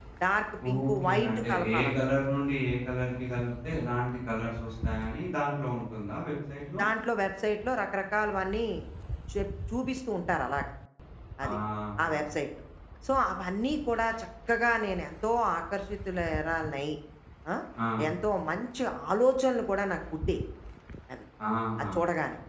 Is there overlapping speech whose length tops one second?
Yes, from 0.9 s

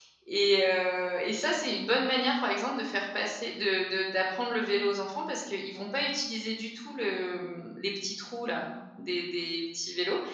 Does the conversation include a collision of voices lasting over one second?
No

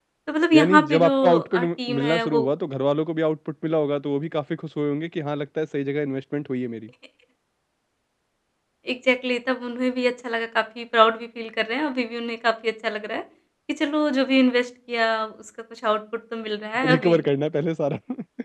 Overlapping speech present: Yes, from 0.6 s

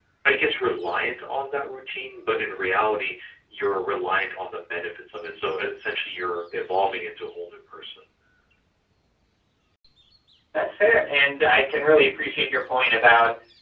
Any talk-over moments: No

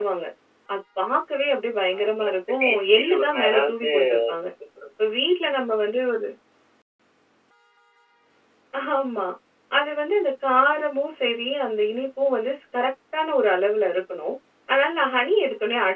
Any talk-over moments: Yes, from 2.0 s

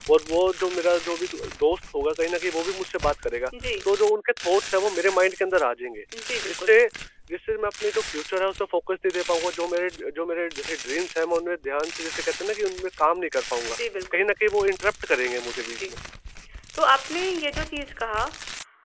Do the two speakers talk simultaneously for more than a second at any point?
No

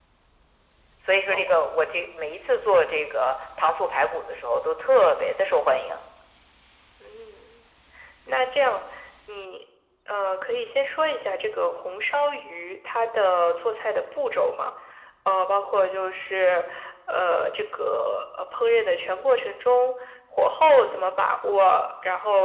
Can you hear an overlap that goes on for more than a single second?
No

